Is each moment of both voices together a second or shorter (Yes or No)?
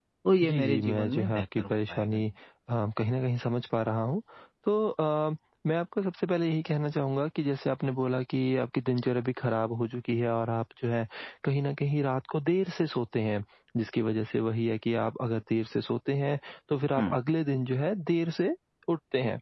No